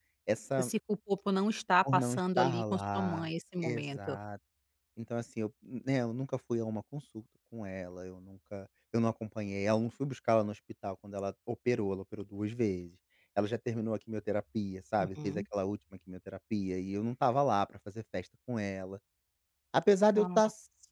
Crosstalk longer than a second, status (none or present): present